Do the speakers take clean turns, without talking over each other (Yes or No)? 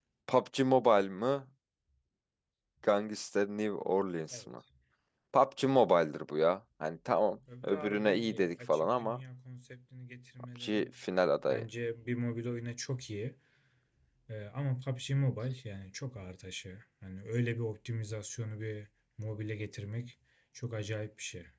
No